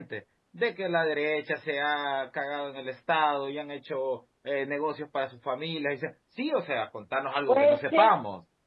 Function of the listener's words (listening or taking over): taking over